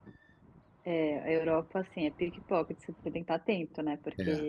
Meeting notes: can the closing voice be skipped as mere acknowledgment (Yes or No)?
Yes